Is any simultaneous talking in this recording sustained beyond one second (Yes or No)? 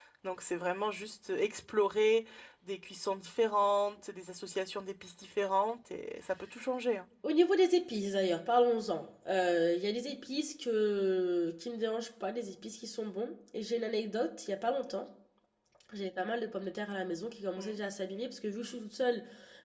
No